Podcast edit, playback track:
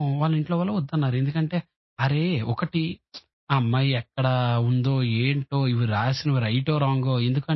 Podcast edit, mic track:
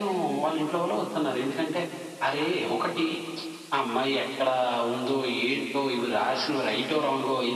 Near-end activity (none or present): none